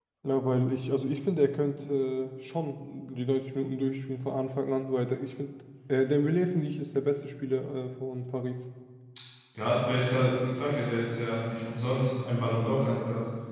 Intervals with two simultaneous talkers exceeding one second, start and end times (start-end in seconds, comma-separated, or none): none